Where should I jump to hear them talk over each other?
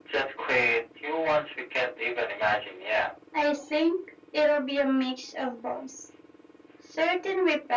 none

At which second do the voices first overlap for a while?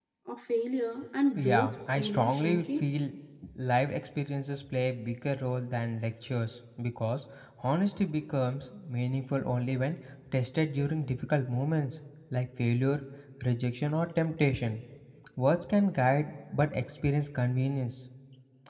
1.4 s

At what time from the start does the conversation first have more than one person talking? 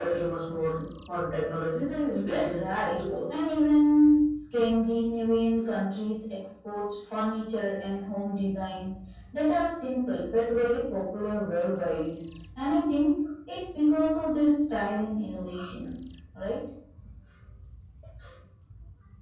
2.3 s

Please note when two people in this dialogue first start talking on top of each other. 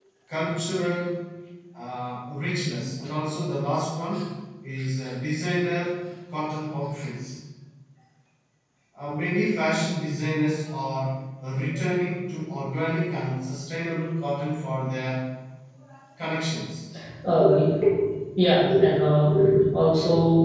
none

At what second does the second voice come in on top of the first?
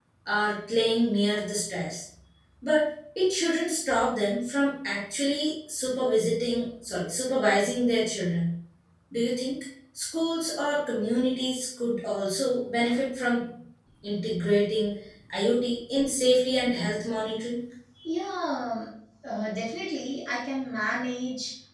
none

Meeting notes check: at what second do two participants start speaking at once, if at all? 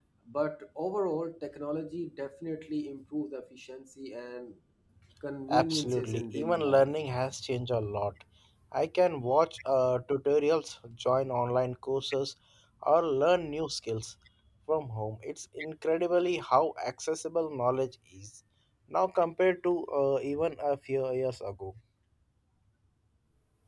5.5 s

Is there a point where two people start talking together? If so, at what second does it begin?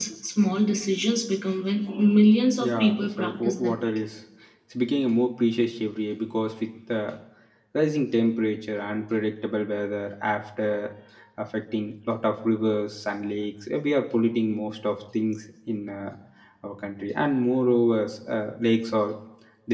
2.6 s

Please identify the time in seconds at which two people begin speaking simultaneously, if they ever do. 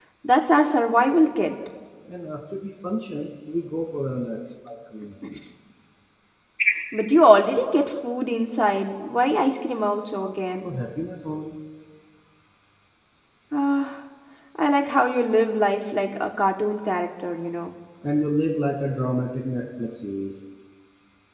none

